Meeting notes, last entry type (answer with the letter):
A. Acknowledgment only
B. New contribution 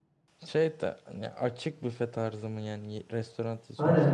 B